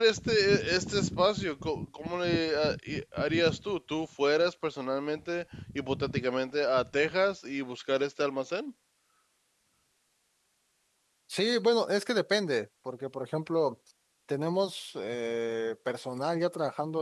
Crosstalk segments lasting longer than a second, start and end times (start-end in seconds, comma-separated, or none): none